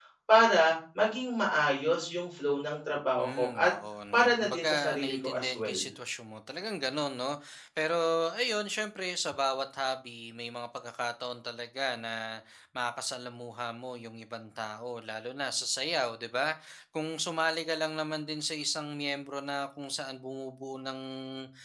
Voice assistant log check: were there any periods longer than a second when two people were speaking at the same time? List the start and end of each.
4.1-5.8

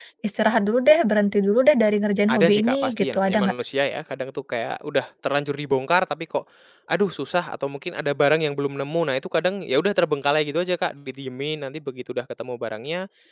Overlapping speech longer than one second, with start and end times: 2.3-3.5

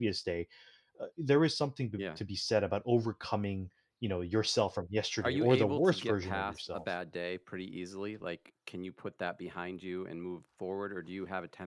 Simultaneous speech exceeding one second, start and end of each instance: 5.2-6.8

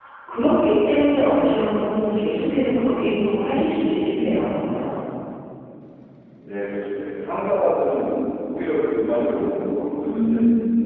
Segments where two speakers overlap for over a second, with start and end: none

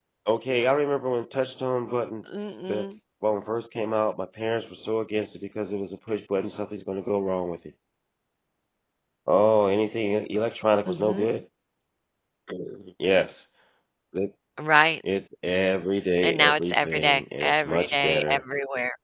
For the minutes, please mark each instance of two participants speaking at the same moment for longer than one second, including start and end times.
16.2-18.4

